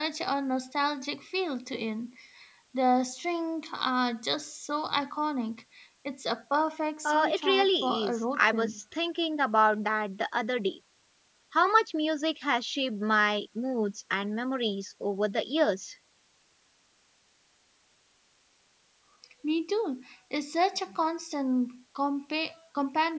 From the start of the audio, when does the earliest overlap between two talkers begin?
7.0 s

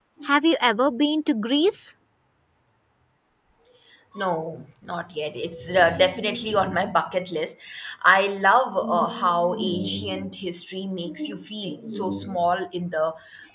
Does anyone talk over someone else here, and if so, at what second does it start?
none

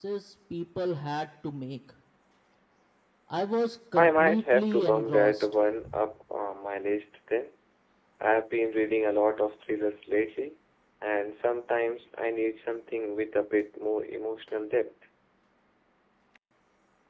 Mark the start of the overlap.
4.0 s

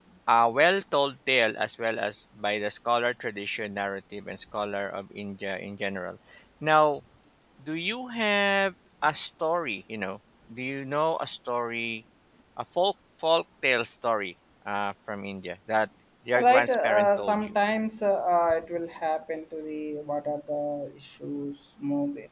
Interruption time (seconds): 16.4 s

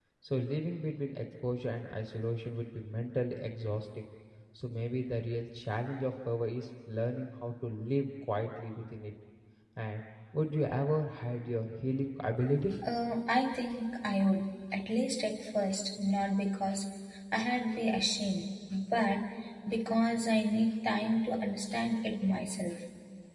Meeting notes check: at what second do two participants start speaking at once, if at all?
none

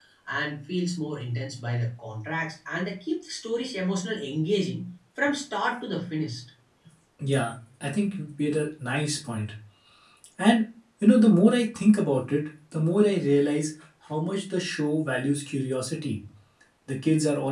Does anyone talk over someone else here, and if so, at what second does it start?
none

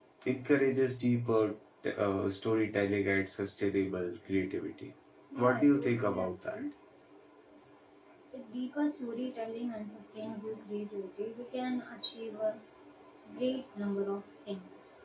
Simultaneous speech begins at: 5.4 s

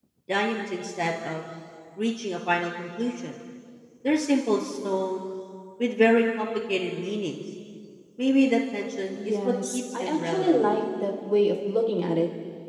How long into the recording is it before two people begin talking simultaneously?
9.2 s

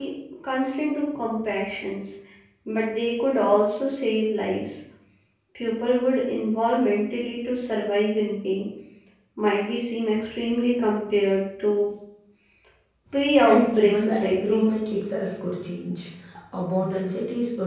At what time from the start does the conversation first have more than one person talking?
13.4 s

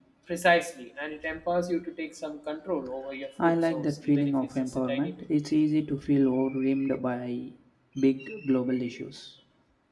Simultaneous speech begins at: 3.4 s

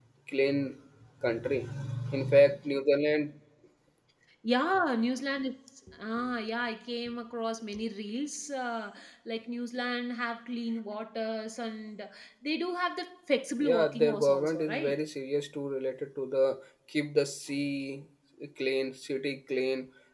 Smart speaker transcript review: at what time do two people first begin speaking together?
13.6 s

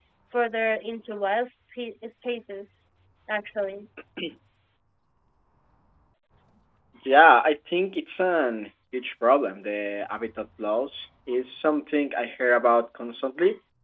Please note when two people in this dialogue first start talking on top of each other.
none

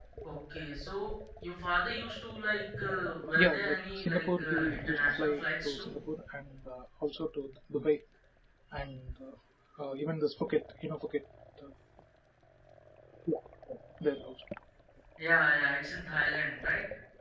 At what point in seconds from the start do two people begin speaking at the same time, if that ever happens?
3.4 s

